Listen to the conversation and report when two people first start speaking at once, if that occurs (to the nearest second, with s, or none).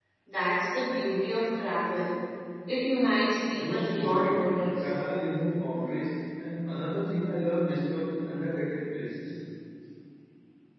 4 s